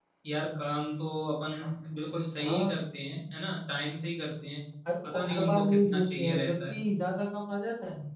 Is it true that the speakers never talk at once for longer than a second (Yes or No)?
No